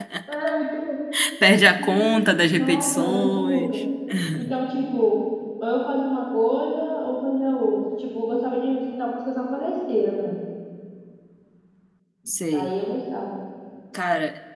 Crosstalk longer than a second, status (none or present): present